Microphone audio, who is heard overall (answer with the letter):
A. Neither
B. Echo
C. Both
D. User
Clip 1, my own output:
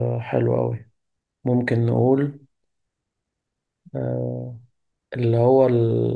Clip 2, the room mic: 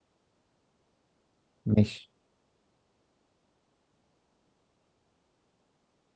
D